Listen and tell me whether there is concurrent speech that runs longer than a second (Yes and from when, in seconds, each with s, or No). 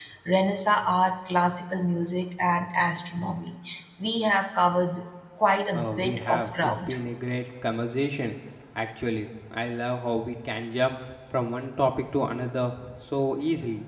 Yes, from 5.7 s